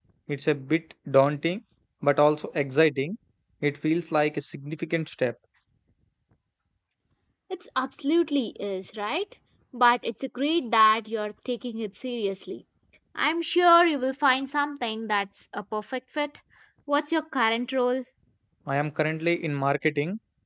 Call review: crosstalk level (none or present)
none